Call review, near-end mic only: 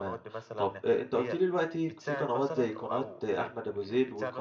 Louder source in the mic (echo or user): user